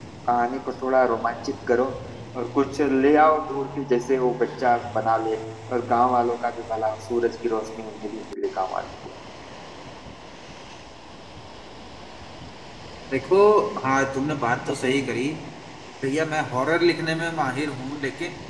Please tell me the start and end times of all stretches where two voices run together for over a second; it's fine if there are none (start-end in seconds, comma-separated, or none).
none